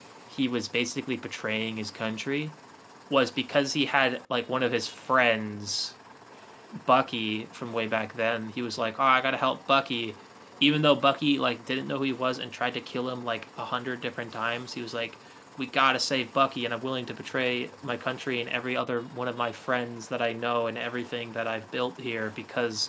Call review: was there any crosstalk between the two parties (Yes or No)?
No